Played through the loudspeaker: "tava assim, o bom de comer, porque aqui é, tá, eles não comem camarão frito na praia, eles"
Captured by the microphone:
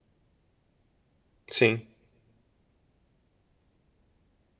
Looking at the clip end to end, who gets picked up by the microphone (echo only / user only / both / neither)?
user only